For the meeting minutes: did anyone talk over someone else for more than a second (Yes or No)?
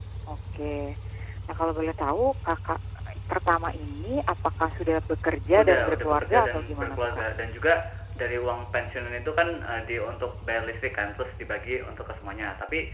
Yes